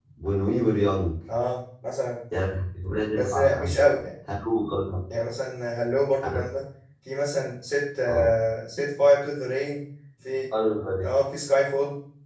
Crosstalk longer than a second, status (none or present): none